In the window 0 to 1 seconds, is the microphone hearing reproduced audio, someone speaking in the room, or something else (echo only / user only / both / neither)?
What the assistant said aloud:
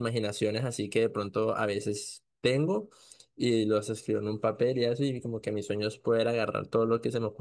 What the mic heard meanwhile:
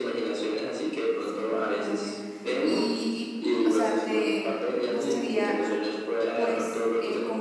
echo only